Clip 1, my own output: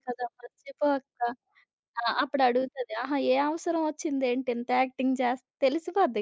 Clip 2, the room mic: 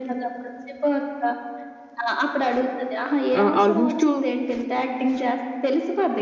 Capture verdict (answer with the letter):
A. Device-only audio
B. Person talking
B